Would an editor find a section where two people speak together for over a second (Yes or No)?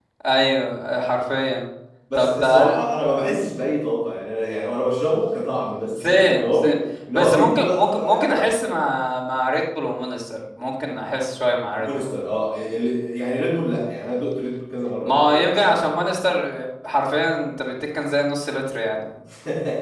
Yes